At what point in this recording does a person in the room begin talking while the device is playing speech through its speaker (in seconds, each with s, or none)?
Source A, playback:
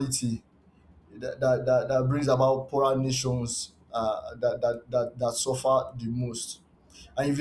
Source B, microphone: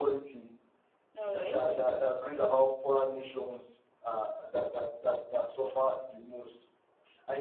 1.2 s